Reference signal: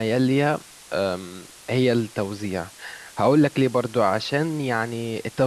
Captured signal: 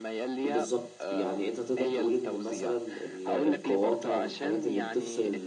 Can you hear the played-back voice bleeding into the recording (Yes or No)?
Yes